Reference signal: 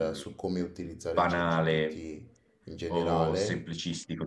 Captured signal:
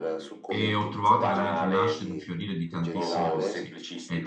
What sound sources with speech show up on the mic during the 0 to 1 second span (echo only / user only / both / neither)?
both